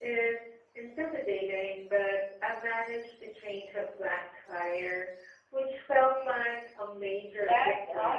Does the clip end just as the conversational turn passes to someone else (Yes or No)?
Yes